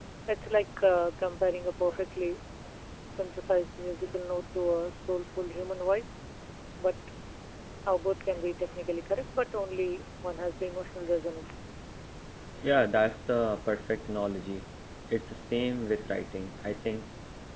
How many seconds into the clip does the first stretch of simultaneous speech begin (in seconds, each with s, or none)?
none